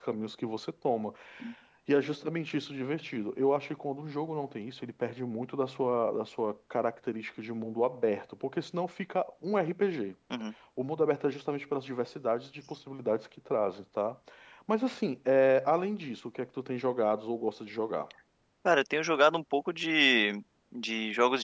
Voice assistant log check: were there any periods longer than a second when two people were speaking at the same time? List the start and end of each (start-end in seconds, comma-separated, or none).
none